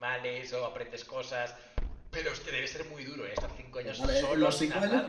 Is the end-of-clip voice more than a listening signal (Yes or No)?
Yes